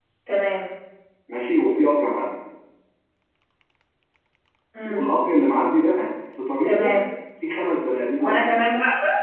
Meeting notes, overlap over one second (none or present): none